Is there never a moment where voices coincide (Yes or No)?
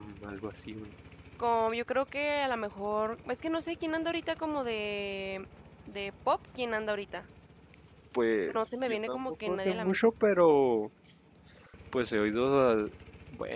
No